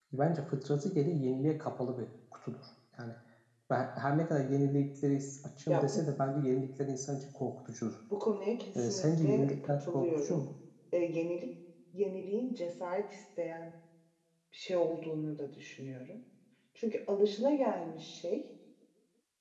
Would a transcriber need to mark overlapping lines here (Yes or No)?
Yes